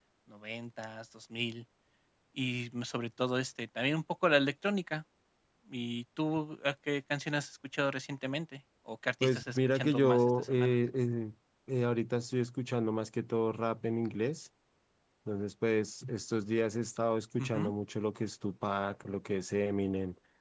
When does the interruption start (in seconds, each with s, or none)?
9.2 s